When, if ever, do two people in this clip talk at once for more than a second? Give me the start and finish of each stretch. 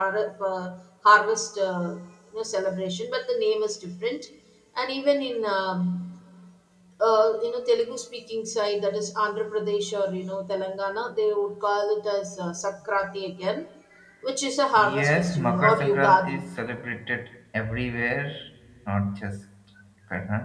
14.8-16.4

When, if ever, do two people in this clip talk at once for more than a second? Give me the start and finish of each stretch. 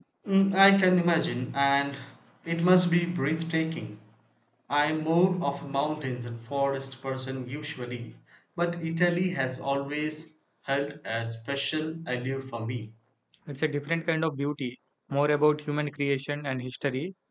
none

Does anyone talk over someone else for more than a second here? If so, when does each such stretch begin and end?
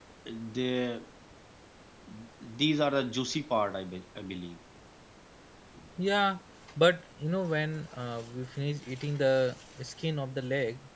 none

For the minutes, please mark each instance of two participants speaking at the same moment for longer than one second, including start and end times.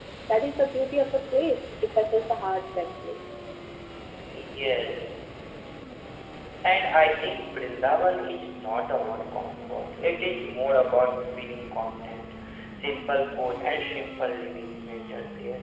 none

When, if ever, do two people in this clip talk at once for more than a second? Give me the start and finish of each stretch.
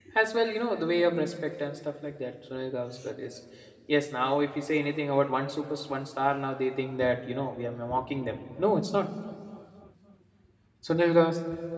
none

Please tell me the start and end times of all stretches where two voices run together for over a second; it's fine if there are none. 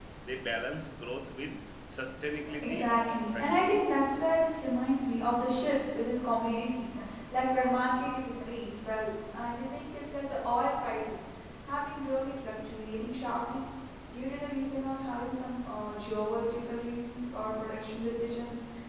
2.6-3.8

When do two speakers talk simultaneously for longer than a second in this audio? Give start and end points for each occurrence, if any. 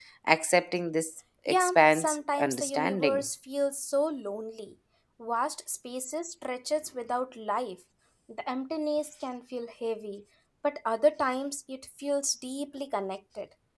1.5-3.2

